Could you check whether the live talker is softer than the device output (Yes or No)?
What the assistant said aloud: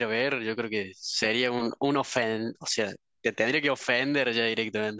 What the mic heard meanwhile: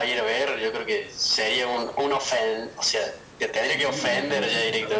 Yes